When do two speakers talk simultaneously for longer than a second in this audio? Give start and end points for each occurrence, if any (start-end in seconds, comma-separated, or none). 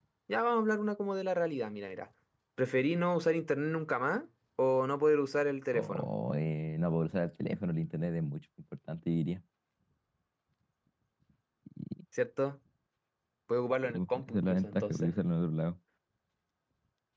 13.9-15.1